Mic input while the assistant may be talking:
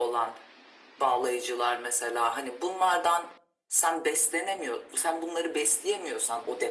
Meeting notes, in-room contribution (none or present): none